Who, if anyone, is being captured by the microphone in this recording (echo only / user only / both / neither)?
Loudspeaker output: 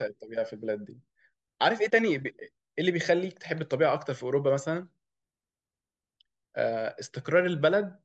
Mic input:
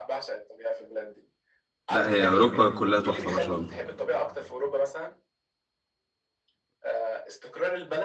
both